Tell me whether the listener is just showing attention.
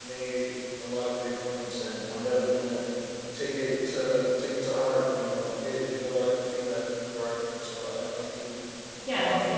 No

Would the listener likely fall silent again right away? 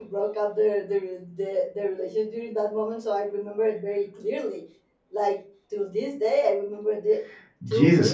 No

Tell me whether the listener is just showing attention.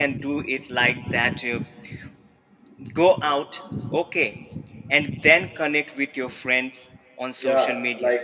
No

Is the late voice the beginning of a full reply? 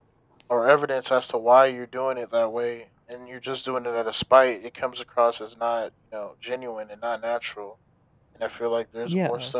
No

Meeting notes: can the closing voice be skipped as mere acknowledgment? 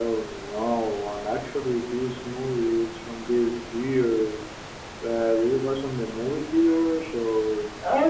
No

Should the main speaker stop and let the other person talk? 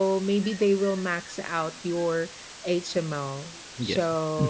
No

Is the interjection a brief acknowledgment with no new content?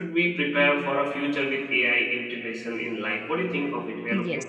No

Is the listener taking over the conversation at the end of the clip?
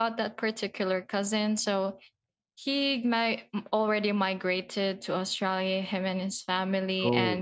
No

